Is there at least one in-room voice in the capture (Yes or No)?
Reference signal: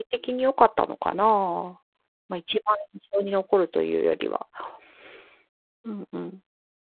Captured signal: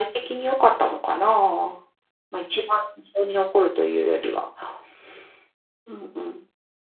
No